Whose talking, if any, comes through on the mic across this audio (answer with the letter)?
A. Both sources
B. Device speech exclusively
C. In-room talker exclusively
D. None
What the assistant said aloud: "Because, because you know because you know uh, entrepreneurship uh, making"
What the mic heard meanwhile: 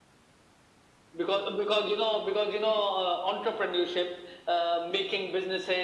B